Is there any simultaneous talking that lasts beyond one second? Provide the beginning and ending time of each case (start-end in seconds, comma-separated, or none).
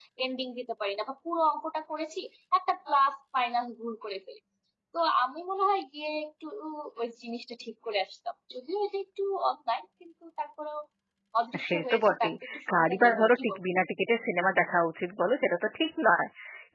11.7-13.6